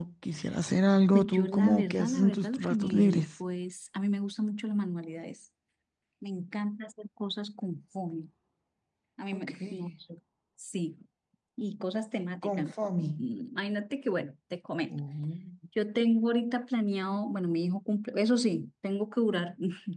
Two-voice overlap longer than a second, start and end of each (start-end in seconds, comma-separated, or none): 1.1-3.2